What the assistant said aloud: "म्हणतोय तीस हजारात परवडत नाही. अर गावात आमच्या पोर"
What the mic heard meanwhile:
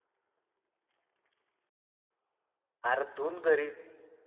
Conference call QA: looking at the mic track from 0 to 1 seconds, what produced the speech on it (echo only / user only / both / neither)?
neither